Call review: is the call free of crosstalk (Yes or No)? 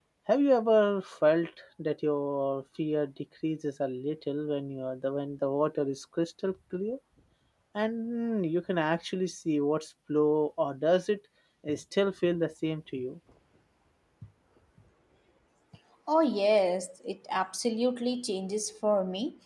Yes